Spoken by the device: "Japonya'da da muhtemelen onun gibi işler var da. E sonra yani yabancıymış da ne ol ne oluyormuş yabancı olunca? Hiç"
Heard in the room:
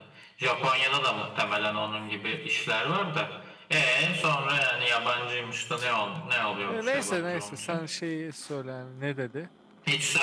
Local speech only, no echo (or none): E, neyse neyse sen şeyi söyle yani ne dedi?